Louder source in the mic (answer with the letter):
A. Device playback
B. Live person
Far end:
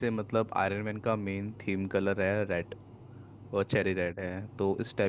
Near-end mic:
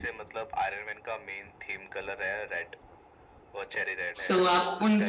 B